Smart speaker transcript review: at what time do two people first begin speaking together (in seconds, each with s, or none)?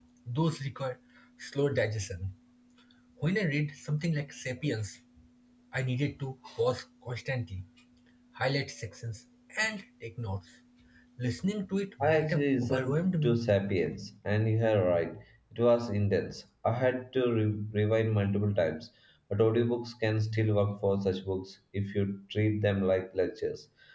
12.0 s